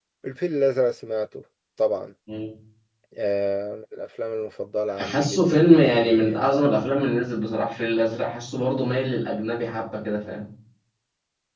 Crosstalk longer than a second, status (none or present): present